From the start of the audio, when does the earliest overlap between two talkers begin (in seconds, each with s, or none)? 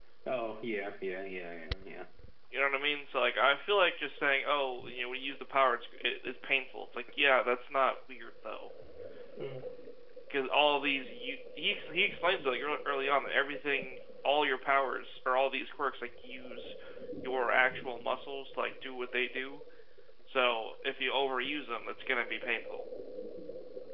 none